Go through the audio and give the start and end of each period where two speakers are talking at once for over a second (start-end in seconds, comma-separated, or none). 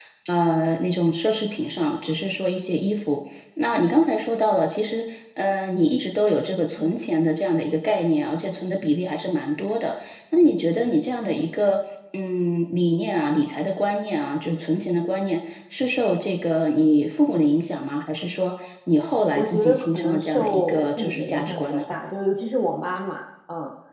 19.4-21.8